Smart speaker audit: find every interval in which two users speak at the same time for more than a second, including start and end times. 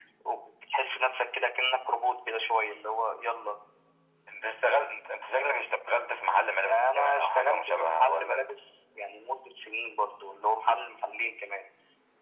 6.7-8.5

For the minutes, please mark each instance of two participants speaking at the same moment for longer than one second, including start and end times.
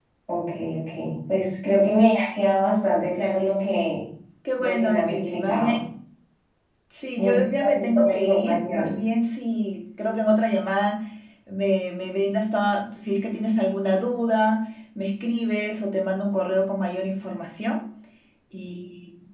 4.6-5.8, 7.2-9.0

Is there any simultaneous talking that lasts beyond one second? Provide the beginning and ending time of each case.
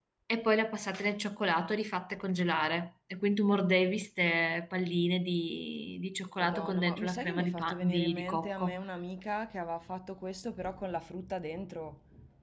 6.4-8.8

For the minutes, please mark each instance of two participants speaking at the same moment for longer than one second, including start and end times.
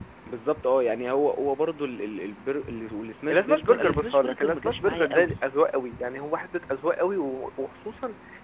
3.3-5.3

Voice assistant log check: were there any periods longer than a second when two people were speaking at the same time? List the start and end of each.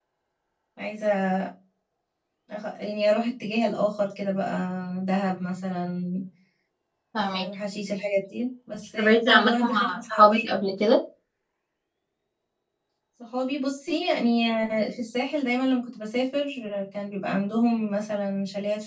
9.0-10.2

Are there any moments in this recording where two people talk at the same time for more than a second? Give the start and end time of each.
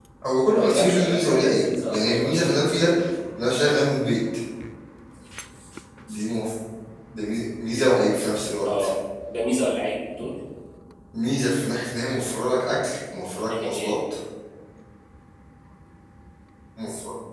0.5-2.9

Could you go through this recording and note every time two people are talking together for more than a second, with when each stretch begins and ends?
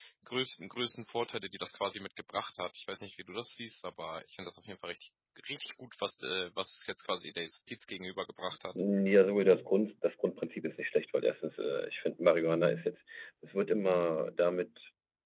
none

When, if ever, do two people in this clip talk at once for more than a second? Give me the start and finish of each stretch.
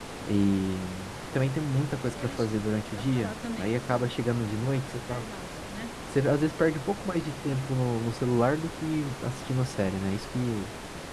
2.0-3.7

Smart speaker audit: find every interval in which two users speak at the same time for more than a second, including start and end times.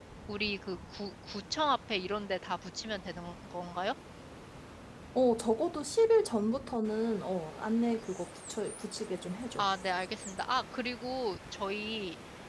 none

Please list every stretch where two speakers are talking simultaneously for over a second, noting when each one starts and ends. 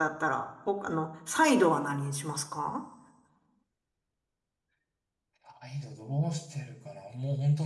none

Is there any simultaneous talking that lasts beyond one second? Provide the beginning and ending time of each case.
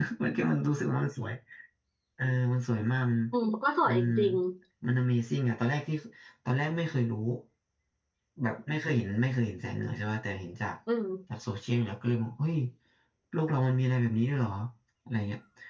none

